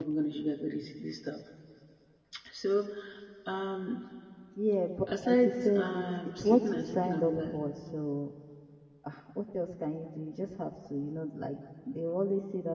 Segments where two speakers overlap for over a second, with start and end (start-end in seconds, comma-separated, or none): 5.2-7.6